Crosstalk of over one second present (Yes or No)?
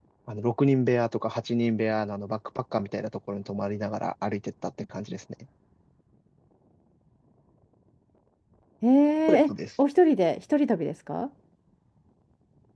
No